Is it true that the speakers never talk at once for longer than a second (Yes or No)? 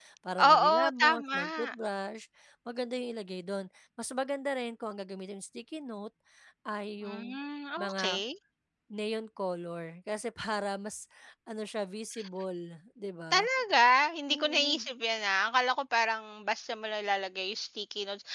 No